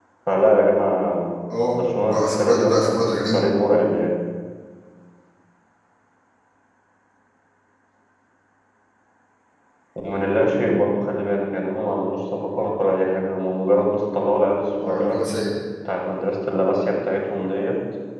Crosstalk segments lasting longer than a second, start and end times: 1.7-3.4

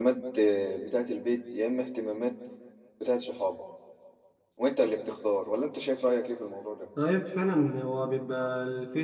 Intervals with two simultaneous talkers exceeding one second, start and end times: none

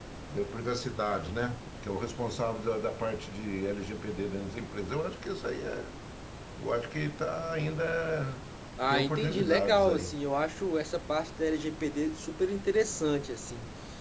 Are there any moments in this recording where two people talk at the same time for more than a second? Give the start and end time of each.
8.9-10.2

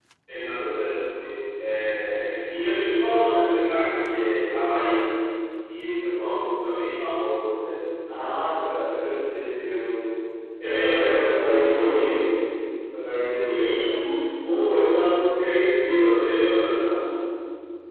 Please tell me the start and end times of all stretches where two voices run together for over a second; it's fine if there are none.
10.6-12.2

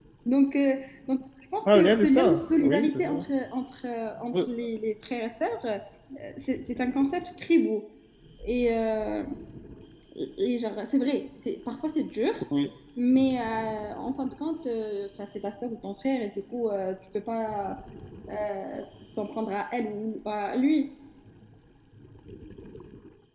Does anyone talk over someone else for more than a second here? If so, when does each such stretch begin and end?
1.6-3.2

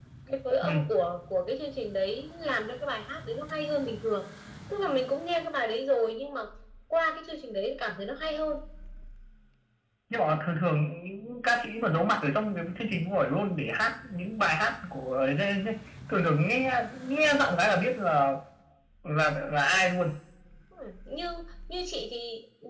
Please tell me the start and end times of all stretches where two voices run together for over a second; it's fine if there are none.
none

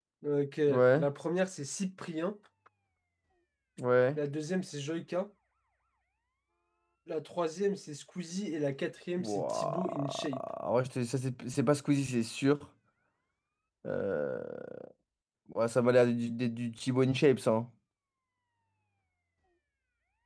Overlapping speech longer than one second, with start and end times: 9.2-10.4

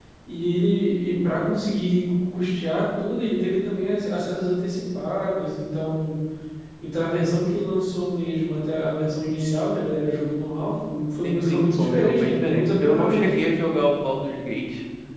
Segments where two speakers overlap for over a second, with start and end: 11.2-13.5

